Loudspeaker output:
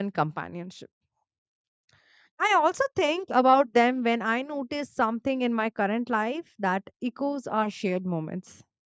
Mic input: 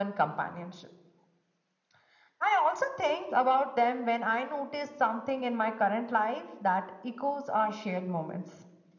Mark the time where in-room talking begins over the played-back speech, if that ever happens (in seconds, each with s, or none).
none